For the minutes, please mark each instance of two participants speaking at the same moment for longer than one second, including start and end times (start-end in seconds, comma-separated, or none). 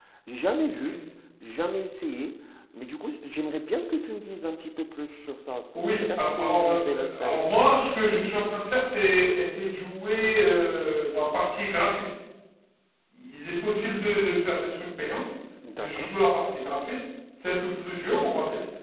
6.0-7.4